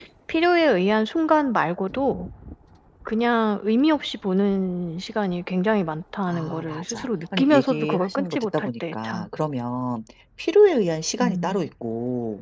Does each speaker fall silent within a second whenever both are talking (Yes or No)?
No